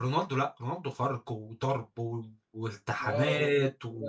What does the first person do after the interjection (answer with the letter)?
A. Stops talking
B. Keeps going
A